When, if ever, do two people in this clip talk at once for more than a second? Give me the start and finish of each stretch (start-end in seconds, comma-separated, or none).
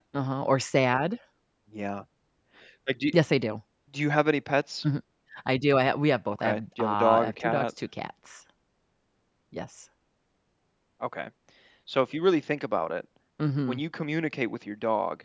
6.3-7.7